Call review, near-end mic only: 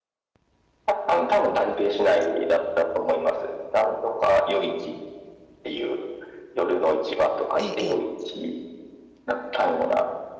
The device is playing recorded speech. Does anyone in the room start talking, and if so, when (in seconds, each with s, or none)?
7.6 s